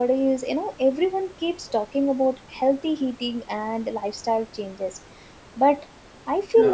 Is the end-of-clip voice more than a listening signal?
No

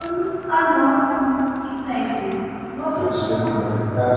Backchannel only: No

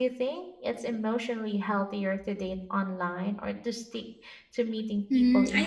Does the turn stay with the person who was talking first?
No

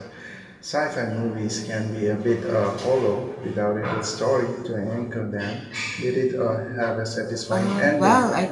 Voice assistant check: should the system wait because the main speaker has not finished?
No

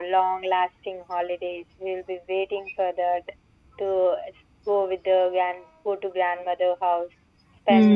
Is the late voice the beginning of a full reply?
No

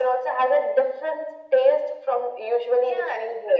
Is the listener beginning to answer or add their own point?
Yes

